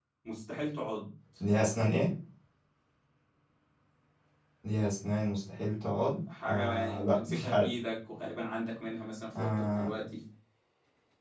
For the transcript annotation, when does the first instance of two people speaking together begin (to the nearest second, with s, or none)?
6 s